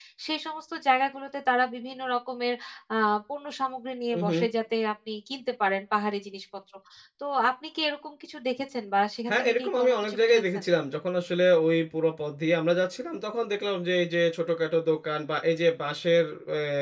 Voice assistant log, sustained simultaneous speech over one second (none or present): present